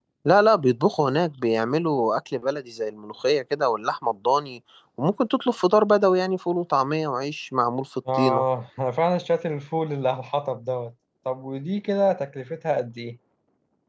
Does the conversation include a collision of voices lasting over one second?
No

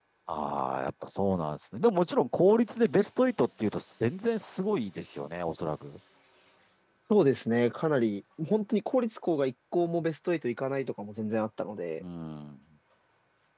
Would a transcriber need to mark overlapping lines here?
No

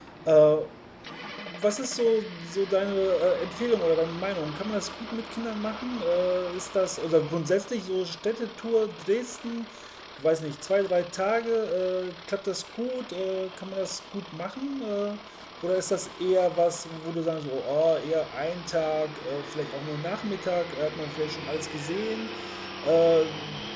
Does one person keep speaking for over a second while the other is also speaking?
No

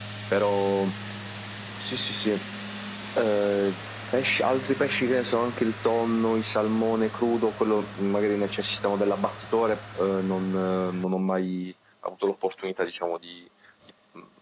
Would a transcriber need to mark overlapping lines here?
No

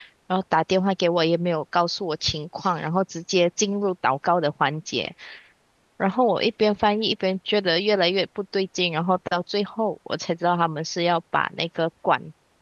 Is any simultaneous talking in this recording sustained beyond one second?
No

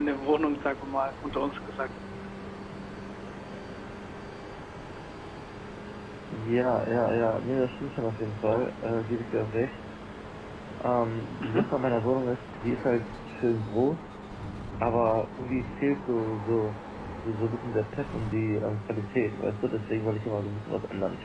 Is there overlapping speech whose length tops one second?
No

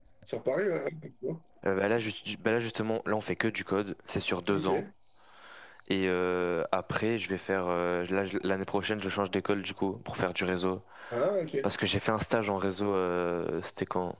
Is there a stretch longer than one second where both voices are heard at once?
No

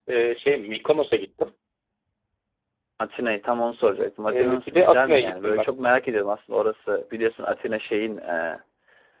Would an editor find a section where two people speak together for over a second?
Yes, from 4.3 s

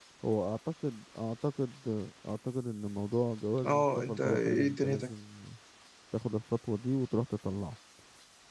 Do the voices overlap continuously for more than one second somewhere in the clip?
Yes, from 3.6 s

